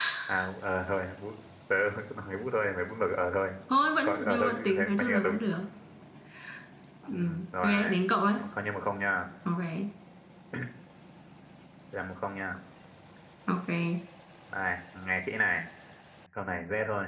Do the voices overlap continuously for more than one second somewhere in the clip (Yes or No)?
Yes